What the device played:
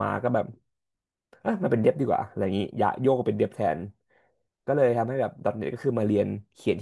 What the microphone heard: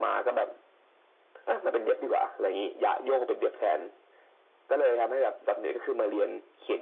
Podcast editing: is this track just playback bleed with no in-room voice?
Yes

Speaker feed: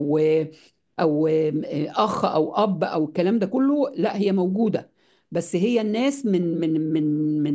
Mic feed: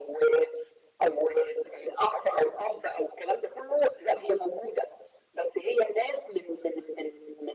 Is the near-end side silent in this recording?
Yes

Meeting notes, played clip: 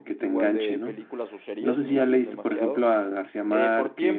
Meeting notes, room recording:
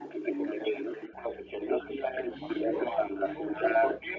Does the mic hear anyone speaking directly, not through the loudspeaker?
Yes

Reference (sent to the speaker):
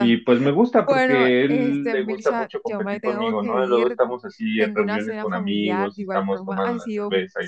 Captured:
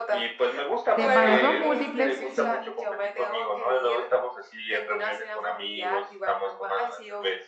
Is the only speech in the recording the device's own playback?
No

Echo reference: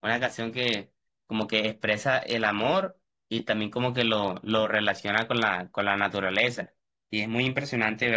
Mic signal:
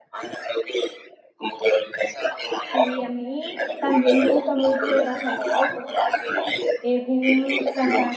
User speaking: Yes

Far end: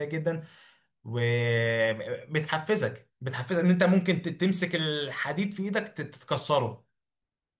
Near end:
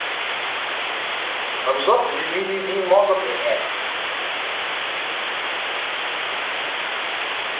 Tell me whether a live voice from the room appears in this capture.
Yes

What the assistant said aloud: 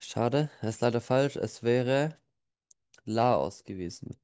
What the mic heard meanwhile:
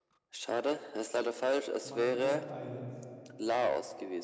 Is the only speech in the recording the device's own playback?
No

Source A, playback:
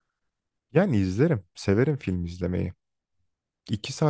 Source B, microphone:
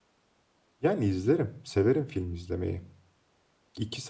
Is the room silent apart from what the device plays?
Yes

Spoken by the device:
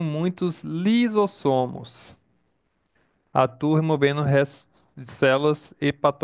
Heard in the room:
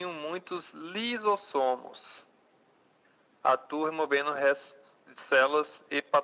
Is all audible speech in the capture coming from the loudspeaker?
Yes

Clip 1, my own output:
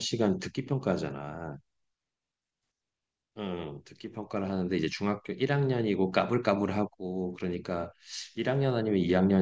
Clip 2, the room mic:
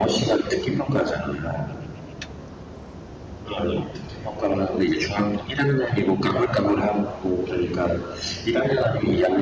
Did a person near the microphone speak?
No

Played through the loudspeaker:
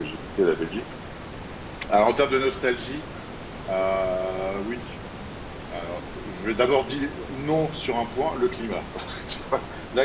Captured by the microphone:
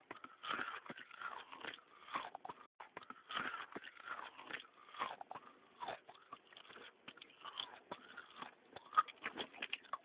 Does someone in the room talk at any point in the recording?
No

